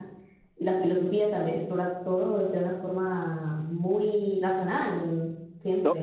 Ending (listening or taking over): taking over